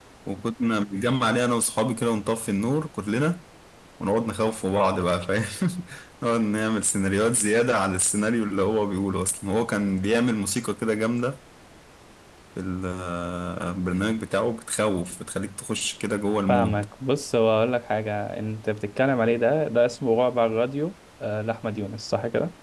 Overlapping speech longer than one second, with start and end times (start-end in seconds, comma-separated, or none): none